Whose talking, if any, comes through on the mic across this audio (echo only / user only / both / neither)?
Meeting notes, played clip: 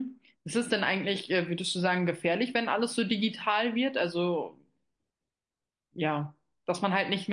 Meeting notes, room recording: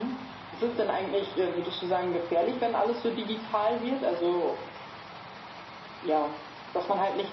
echo only